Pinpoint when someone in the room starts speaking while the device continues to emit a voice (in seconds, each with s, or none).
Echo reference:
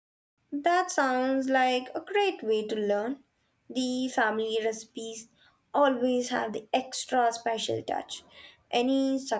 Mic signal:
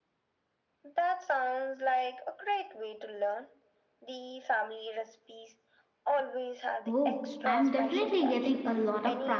6.9 s